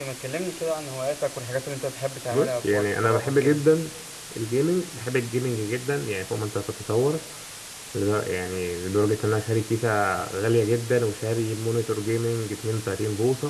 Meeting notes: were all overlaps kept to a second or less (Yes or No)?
No